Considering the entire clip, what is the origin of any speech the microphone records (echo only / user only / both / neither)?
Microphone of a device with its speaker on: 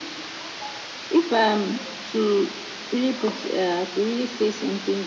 echo only